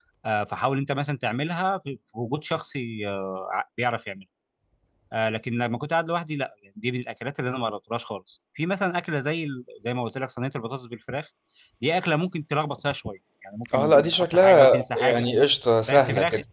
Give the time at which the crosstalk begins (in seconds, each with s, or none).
13.7 s